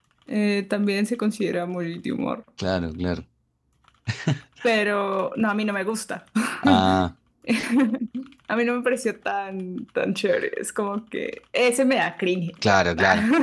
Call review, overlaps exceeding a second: none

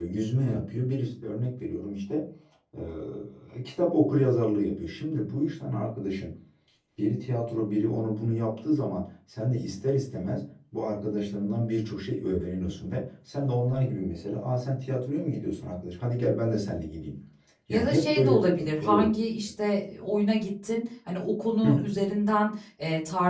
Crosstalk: present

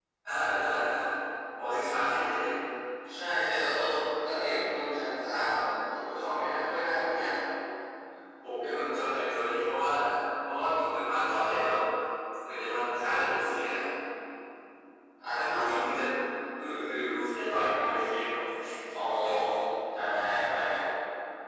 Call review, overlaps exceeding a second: none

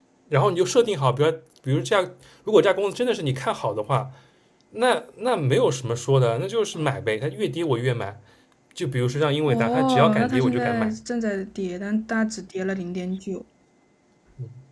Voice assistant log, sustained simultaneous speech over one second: present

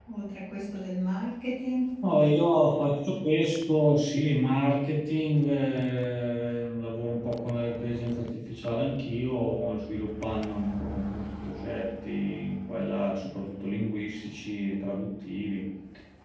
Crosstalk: none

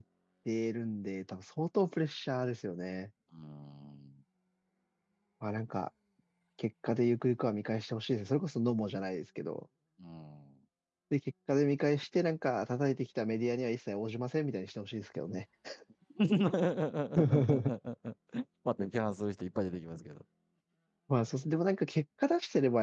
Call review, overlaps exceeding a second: none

